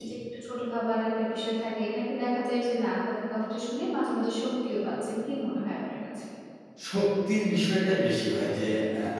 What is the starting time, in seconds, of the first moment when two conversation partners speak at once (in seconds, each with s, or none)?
none